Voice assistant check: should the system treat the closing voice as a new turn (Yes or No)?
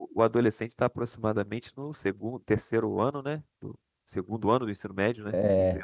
Yes